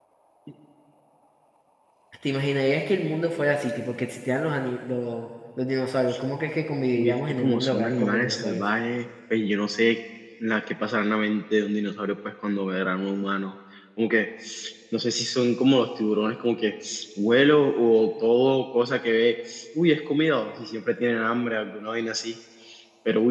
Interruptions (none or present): present